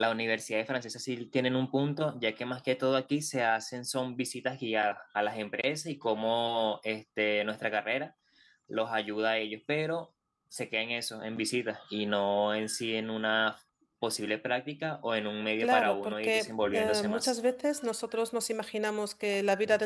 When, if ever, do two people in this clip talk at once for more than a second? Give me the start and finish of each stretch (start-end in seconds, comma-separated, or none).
15.6-17.3